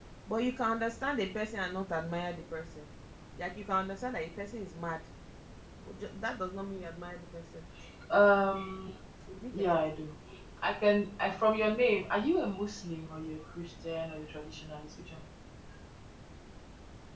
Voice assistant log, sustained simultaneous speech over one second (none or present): none